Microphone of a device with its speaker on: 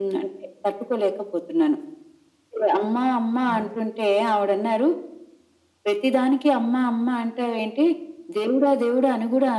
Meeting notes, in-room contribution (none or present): present